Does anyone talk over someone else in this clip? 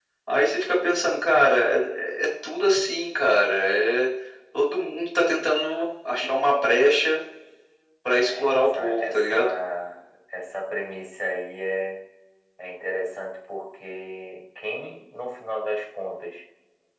Yes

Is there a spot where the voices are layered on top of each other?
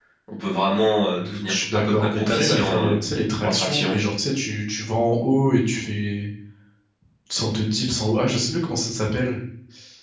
Yes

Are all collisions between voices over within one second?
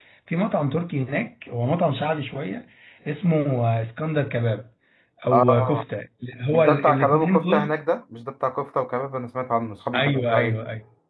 No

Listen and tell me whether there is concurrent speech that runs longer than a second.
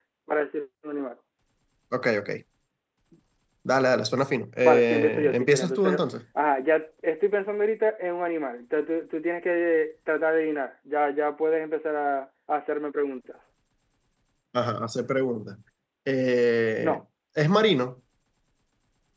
Yes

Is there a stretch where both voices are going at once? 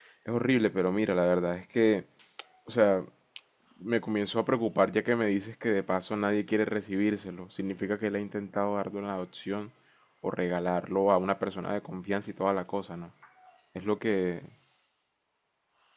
No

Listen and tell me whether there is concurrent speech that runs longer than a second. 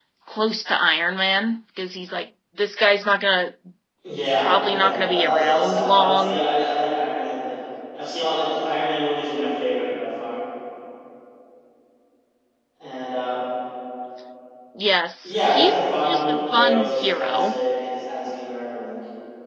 Yes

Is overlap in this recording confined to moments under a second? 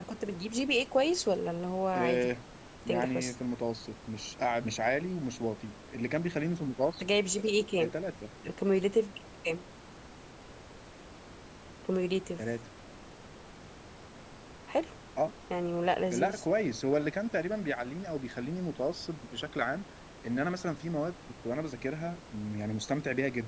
Yes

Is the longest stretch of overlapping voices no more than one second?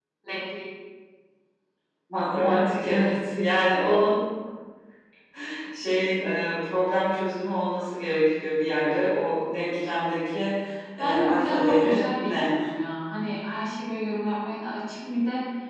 No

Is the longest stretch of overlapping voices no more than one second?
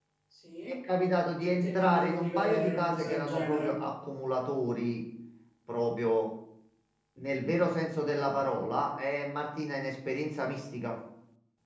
No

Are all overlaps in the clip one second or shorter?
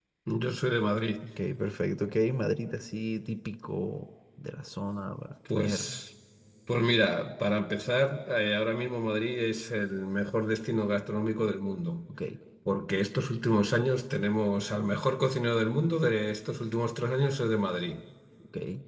Yes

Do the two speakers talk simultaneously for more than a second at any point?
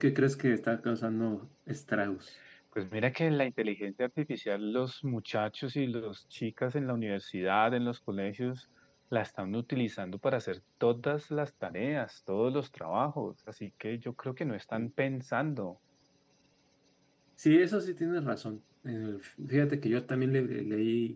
No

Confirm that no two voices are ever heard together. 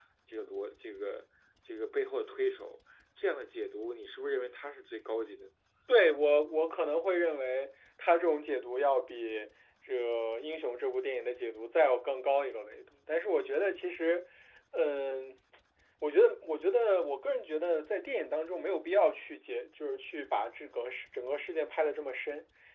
Yes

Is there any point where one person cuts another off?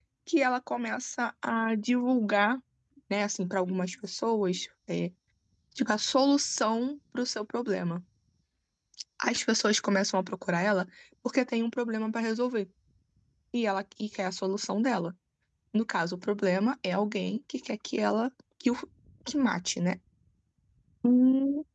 No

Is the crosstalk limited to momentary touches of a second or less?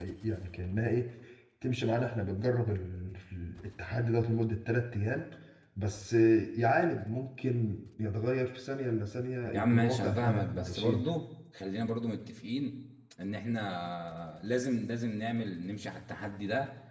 No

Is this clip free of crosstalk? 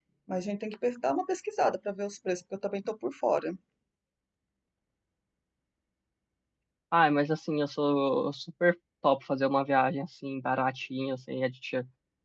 Yes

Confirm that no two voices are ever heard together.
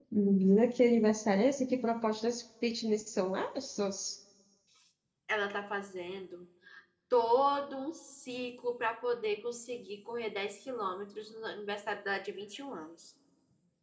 Yes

